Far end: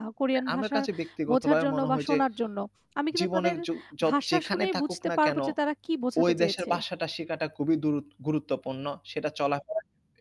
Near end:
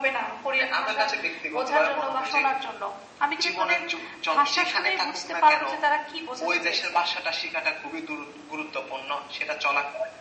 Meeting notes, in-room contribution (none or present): none